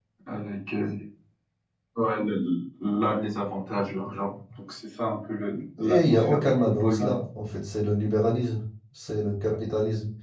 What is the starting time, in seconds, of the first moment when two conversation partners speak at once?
6 s

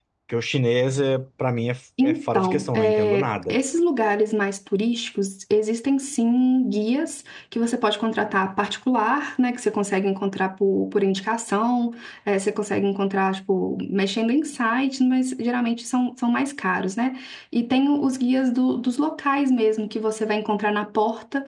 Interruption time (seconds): 2 s

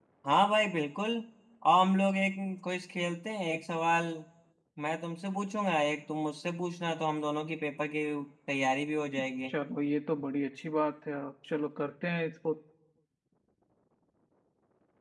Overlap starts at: none

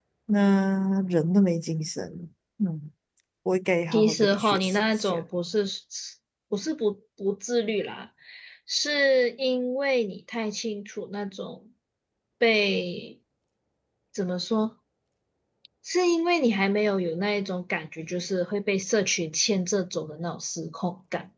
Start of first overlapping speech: 4 s

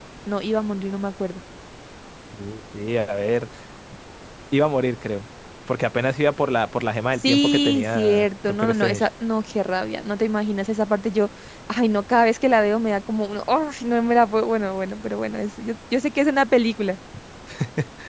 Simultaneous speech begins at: 7 s

